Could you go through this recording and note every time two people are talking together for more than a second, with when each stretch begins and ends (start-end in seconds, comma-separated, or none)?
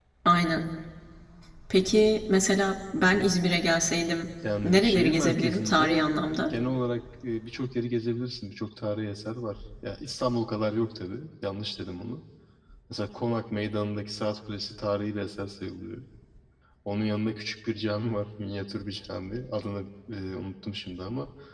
4.6-6.5